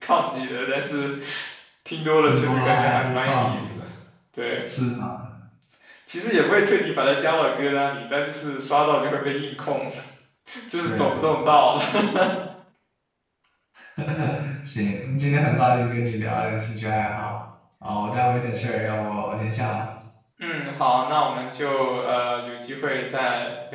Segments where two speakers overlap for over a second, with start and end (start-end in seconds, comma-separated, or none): 2.2-3.6